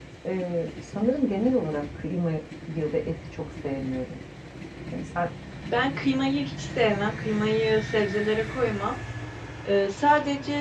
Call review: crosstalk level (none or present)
none